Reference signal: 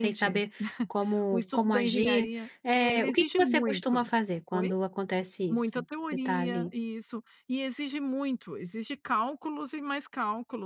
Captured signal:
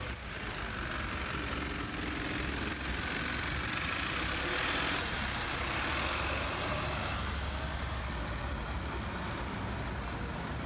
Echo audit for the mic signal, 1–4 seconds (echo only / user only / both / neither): neither